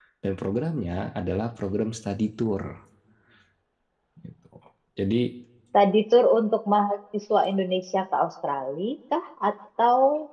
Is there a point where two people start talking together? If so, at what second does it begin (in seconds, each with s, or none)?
none